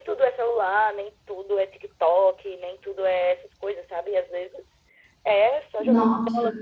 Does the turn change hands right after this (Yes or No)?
No